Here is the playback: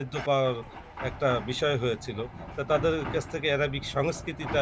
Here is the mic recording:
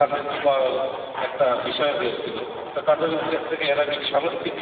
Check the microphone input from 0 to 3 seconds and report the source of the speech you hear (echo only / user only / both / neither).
echo only